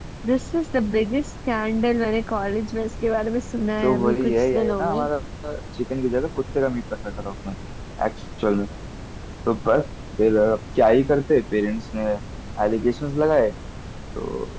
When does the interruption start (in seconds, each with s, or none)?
3.8 s